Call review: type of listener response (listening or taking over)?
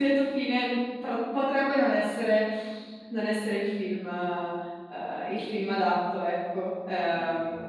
taking over